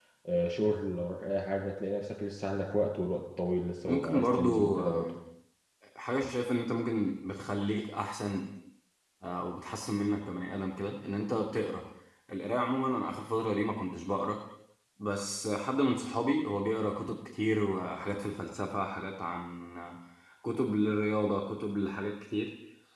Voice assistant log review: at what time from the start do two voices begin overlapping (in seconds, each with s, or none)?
3.9 s